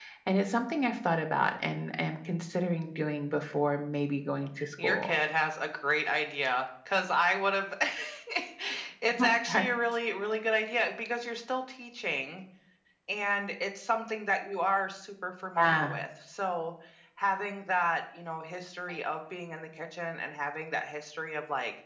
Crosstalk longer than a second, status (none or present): none